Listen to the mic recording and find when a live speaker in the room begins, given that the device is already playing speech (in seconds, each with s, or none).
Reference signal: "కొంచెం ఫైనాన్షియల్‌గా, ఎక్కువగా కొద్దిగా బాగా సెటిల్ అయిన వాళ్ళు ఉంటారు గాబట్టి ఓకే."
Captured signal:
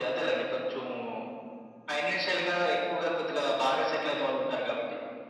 none